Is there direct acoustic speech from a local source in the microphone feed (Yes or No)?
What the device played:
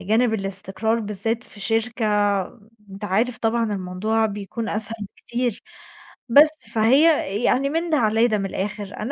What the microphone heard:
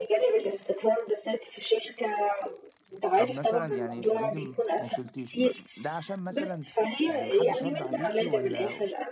Yes